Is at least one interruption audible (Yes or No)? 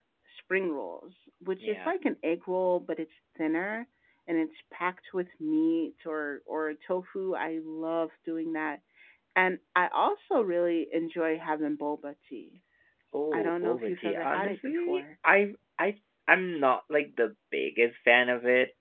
Yes